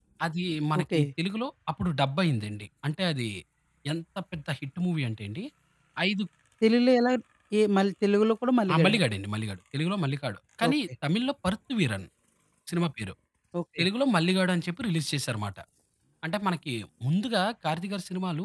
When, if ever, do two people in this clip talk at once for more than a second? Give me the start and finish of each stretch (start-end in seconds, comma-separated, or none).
none